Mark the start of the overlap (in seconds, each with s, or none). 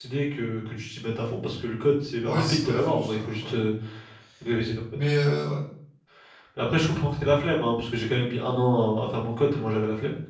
2.2 s